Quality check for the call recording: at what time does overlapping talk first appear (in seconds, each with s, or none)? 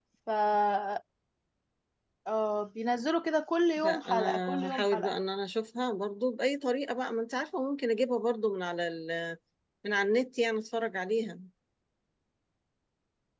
3.8 s